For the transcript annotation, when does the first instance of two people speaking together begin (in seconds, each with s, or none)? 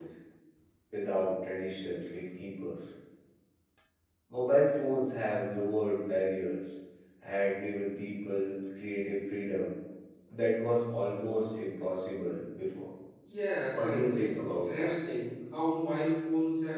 13.7 s